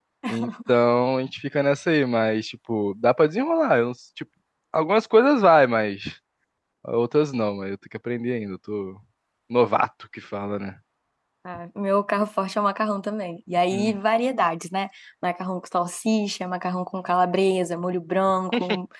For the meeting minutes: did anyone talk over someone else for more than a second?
No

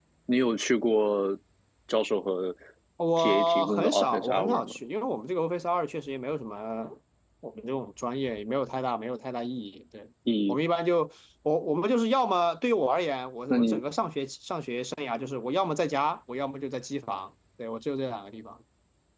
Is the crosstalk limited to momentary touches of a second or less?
No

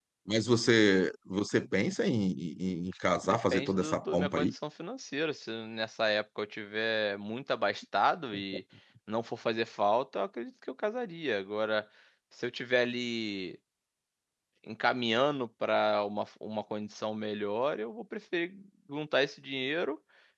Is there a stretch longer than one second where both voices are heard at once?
Yes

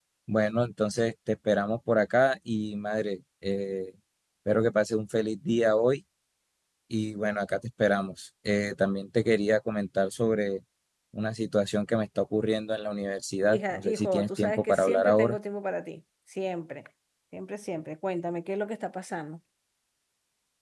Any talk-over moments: Yes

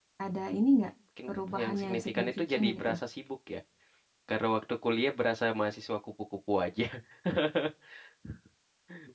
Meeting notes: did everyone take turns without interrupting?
No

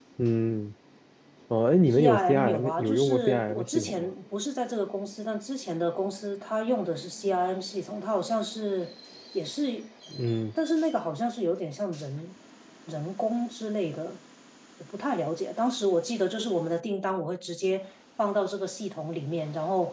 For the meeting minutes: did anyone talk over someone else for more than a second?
Yes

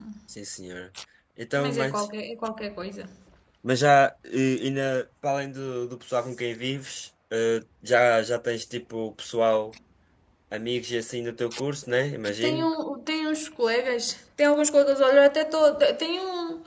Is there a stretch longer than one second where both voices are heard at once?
No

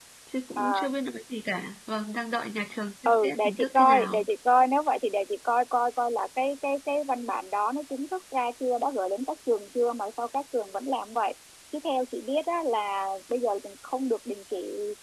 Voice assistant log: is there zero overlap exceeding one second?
No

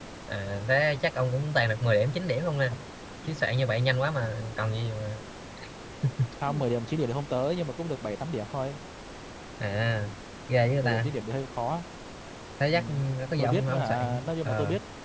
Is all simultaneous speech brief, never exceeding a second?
No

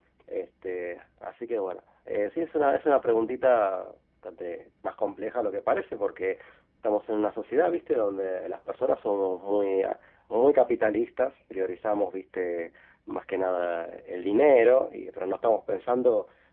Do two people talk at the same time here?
No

